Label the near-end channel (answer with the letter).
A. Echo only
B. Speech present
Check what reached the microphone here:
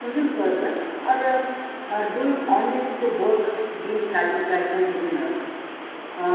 B